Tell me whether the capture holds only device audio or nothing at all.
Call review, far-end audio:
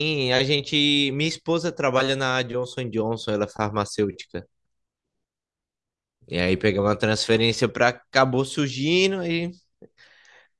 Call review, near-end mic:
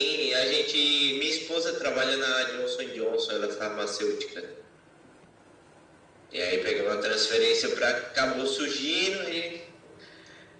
Yes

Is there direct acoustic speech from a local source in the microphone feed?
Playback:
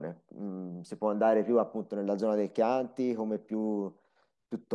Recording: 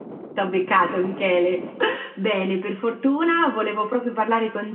Yes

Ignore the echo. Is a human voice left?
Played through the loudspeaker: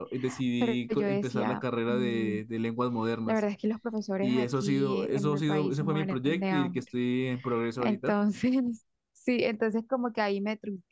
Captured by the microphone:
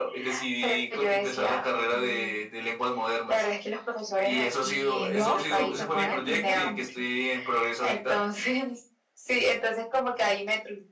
Yes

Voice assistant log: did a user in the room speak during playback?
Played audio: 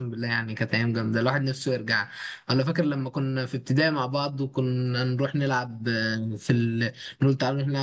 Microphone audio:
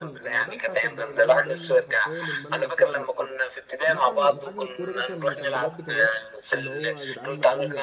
Yes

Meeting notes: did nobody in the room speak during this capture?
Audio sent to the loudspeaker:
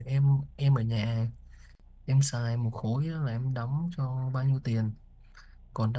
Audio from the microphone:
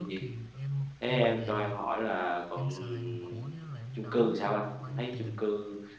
No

